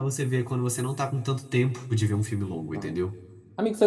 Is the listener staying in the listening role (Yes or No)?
No